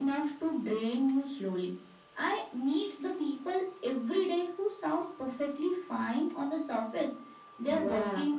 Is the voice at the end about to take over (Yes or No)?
No